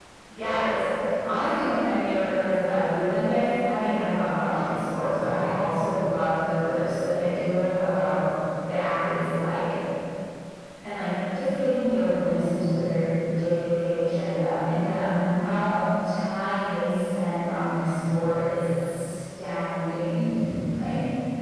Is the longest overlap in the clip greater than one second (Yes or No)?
No